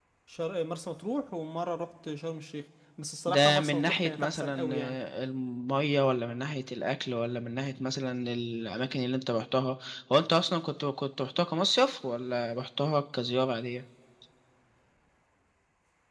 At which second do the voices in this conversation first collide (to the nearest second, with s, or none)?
3 s